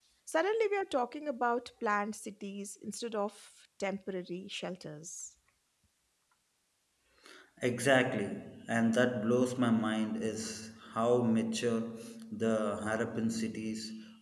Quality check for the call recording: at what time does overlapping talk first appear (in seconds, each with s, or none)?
none